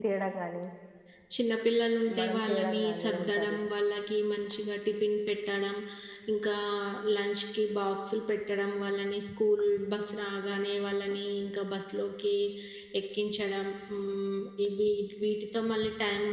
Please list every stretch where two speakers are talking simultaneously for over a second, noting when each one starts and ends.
2.2-3.6

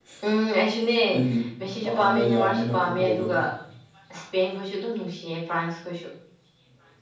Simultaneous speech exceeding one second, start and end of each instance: 1.8-3.4

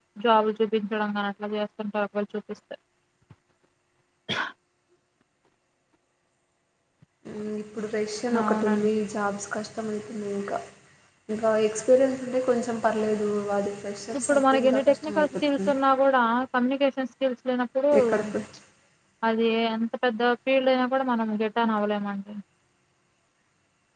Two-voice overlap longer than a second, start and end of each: 14.2-15.7

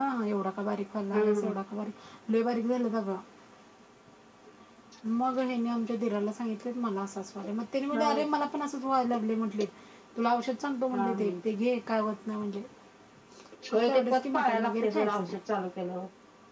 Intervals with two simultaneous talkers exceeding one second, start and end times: 13.7-15.2

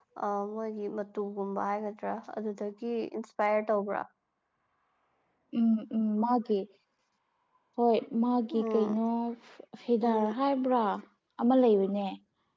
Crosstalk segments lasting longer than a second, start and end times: none

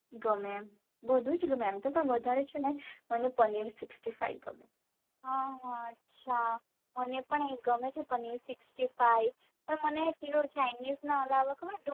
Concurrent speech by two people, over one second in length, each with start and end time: none

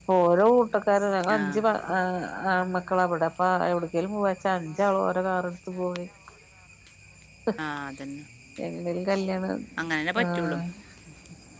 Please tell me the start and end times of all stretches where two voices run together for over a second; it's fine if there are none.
none

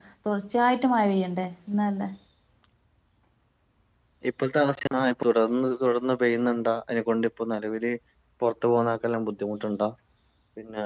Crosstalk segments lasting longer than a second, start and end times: none

